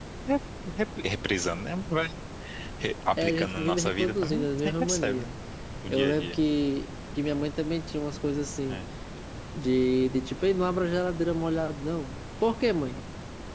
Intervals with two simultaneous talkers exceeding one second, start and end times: 3.2-5.2

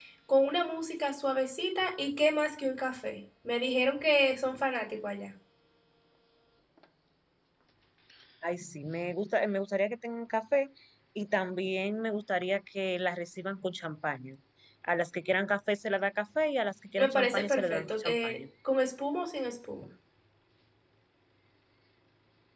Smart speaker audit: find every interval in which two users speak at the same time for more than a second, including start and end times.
17.0-18.4

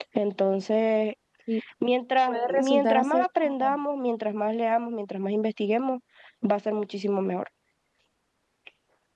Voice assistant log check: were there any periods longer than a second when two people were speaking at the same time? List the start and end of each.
2.3-3.8

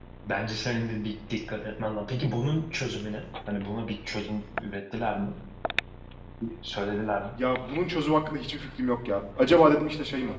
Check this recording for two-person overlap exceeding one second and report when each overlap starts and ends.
none

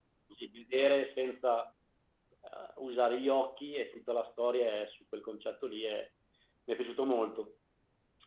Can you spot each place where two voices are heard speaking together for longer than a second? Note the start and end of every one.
none

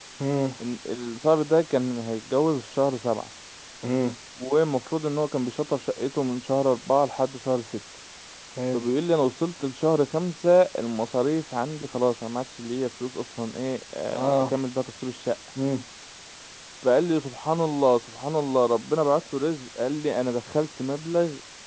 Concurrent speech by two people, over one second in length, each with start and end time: none

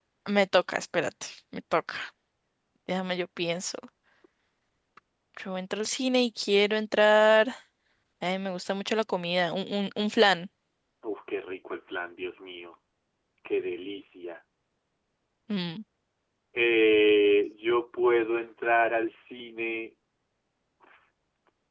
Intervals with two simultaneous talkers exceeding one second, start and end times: none

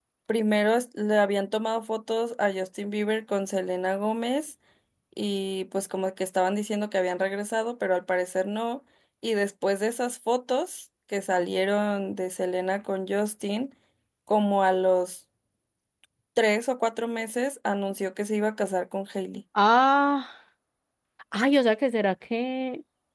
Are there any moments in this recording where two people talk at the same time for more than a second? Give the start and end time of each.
none

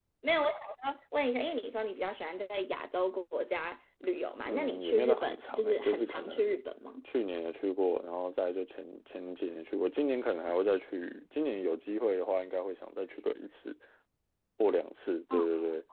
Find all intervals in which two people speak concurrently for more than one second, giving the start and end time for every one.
4.4-6.6

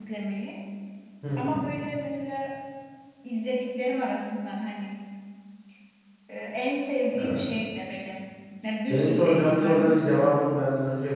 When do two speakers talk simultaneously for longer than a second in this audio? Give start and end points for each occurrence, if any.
8.9-10.2

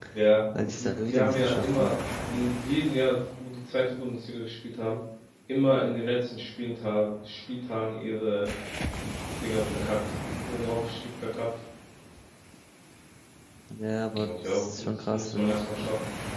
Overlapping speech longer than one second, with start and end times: 0.6-1.9, 14.1-15.6

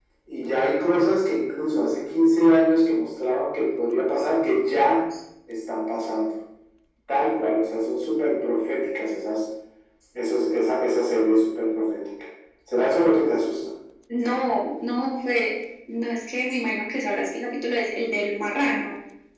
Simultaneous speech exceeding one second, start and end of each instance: none

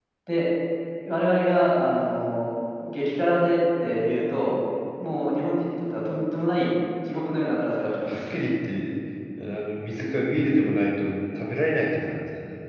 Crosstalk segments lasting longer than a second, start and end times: none

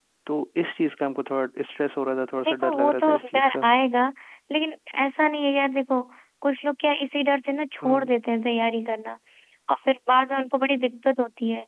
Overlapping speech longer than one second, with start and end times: 2.5-3.7

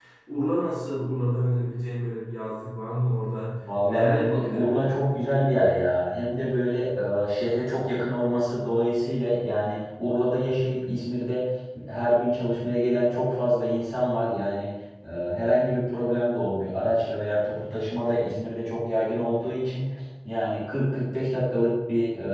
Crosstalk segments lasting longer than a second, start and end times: 3.6-5.0

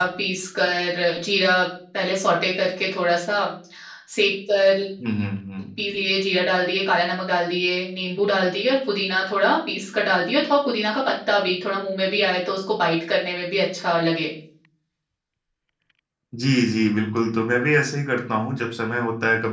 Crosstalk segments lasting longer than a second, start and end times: none

